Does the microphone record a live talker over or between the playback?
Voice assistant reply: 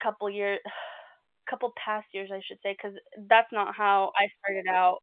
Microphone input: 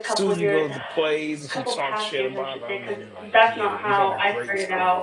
Yes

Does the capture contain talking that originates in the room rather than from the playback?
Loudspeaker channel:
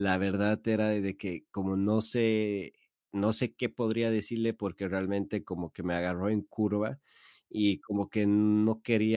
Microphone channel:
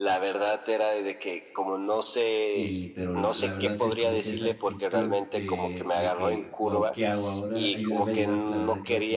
Yes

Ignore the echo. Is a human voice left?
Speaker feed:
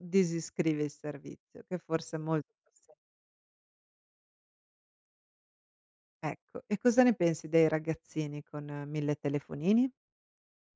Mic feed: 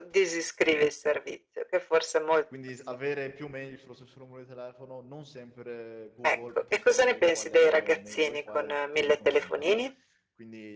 Yes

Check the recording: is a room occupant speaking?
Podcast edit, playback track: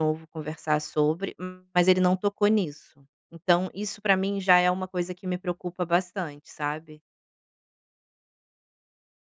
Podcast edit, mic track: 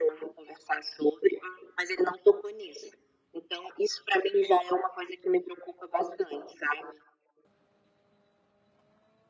No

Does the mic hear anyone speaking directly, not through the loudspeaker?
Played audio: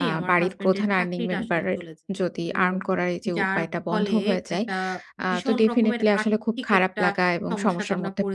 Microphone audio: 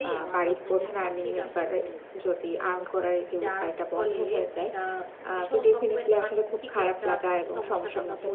No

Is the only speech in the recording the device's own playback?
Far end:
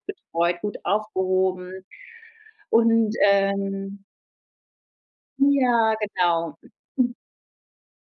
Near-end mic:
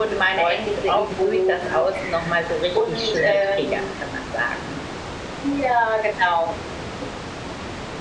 No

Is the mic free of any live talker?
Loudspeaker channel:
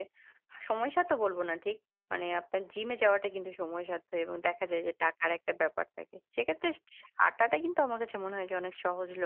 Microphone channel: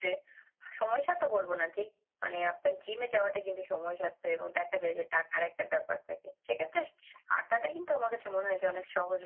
Yes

